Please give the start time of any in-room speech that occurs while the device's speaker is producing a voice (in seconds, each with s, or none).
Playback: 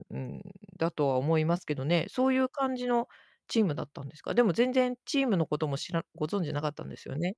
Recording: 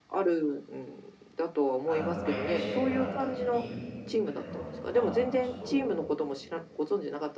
1.8 s